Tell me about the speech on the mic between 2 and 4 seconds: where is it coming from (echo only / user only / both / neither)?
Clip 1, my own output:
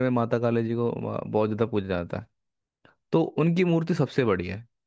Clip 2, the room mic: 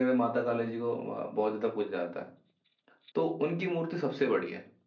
echo only